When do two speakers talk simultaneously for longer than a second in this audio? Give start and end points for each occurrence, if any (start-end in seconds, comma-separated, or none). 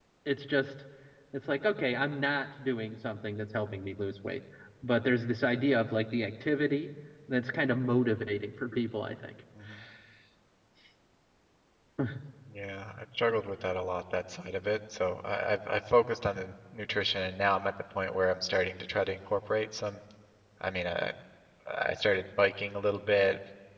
none